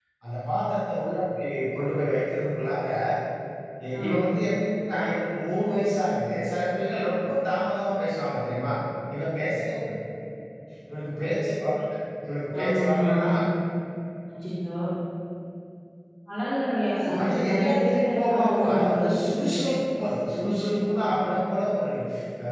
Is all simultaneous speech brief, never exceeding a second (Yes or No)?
No